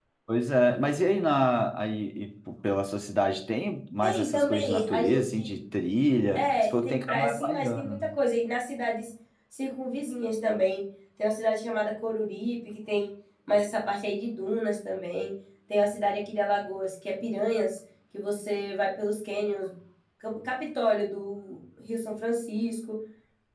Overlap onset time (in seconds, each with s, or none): 4.0 s